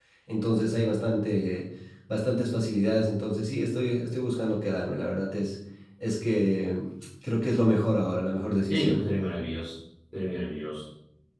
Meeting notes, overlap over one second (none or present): none